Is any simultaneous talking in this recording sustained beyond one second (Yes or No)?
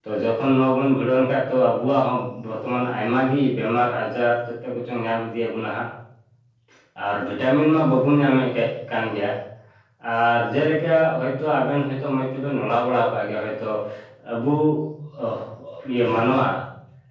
No